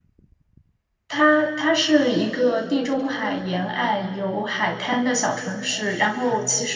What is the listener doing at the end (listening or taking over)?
listening